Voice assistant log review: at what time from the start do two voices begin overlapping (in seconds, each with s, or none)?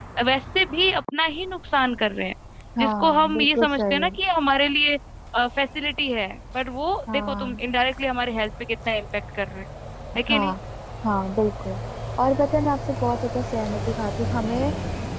2.8 s